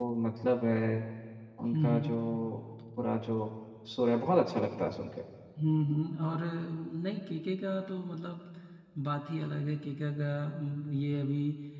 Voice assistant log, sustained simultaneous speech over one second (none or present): none